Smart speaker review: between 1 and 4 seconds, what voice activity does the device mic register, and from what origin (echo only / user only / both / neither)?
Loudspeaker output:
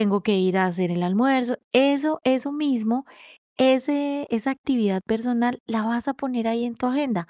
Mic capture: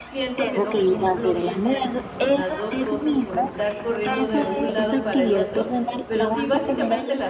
both